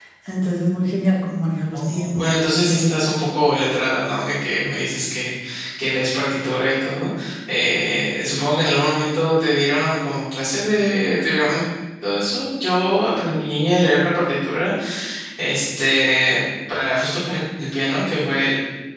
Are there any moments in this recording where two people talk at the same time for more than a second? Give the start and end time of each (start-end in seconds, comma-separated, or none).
1.8-3.0